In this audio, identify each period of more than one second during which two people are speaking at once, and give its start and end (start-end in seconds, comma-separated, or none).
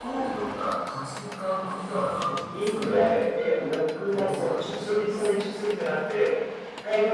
4.1-5.3